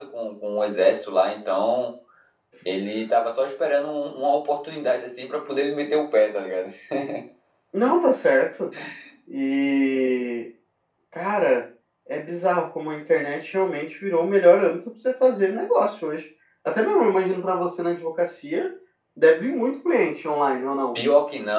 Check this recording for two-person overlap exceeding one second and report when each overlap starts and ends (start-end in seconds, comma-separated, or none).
none